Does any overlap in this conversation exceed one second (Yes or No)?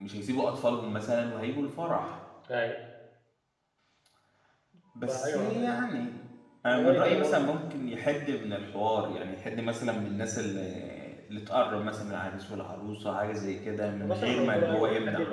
Yes